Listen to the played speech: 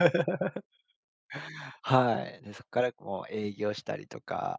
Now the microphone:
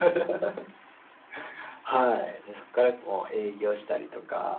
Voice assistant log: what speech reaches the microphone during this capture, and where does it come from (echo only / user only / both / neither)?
echo only